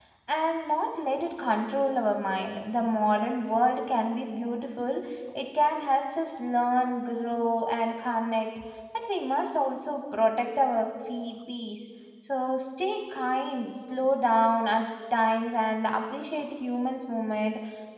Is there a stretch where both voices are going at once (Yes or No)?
No